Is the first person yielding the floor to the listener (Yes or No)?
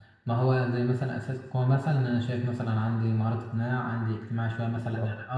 No